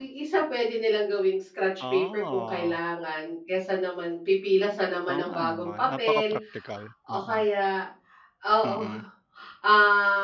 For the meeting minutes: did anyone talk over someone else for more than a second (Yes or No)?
Yes